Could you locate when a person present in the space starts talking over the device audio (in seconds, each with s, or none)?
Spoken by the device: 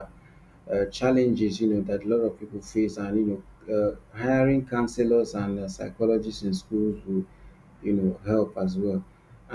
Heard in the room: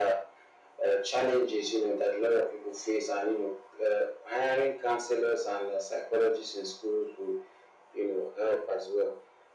none